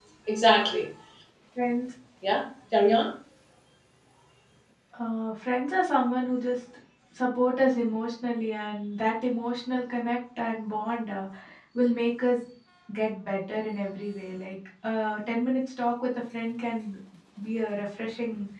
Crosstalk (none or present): none